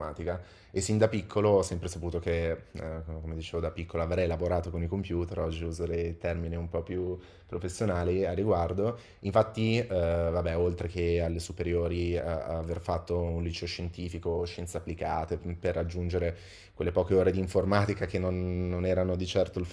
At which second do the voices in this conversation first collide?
none

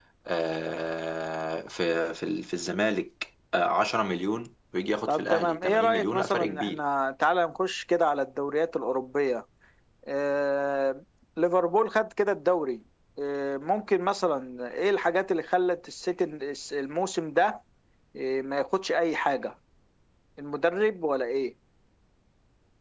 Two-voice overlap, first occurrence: 5 s

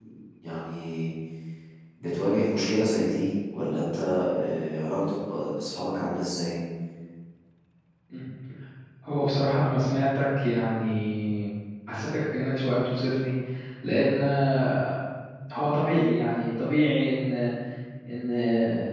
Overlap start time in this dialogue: none

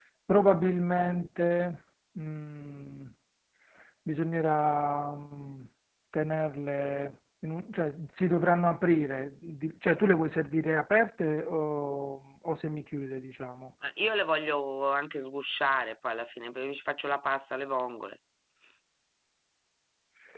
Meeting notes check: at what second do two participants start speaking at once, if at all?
none

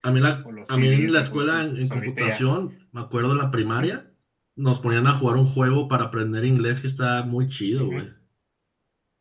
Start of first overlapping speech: 1 s

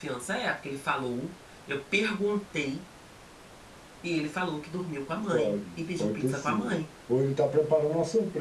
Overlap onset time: 5 s

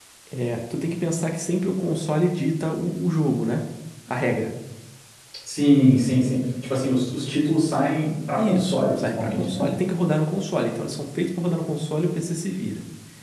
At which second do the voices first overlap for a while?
8 s

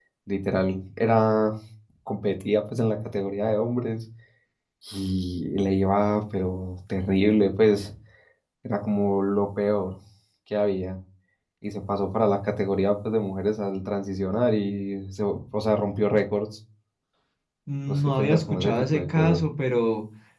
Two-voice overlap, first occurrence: 18 s

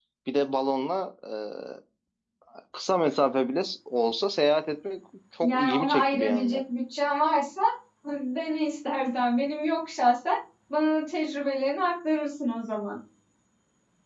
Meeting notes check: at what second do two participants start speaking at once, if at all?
5 s

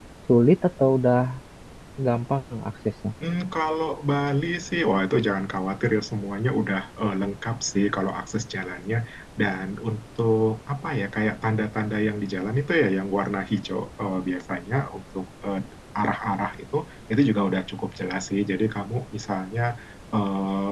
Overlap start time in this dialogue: none

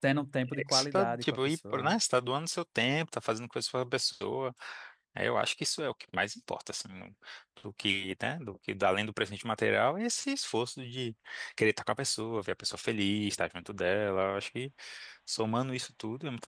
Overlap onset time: 1 s

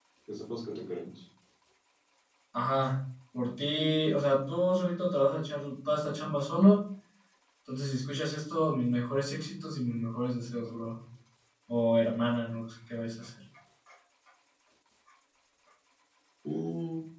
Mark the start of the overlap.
none

